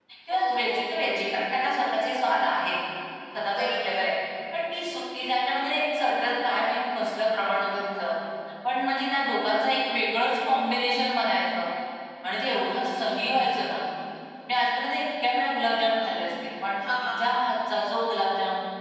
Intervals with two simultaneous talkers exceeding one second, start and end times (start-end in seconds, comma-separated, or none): none